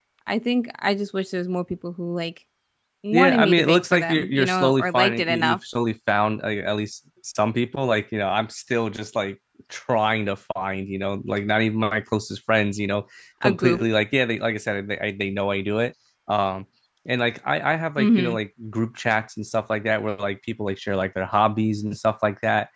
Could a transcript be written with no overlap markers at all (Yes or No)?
No